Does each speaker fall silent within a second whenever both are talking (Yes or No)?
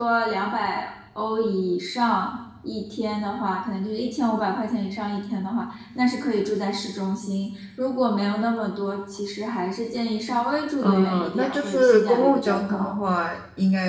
No